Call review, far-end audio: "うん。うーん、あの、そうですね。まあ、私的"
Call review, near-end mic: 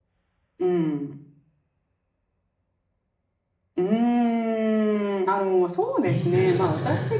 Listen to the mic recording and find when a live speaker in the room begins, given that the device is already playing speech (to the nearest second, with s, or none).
6 s